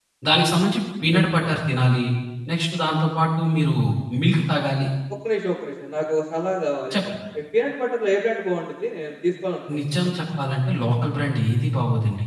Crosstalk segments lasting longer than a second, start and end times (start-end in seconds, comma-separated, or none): none